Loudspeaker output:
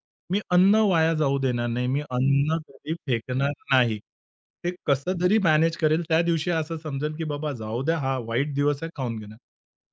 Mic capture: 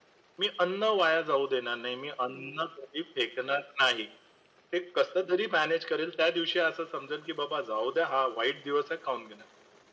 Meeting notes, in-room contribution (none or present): none